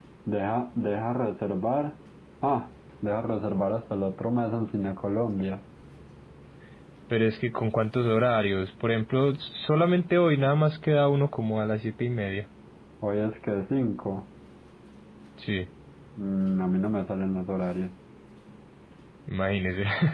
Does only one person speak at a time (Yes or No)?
Yes